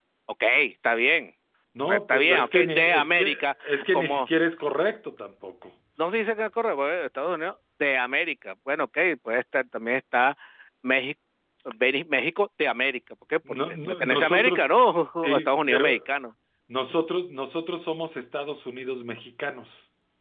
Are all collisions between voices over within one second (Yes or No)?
No